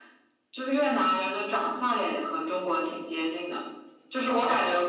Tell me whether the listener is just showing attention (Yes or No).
Yes